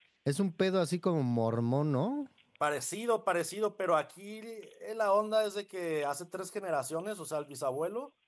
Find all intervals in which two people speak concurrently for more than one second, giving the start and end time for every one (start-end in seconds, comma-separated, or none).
none